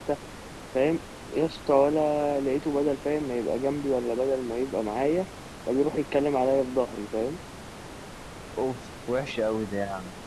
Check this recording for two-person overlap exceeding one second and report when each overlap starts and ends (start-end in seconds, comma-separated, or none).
none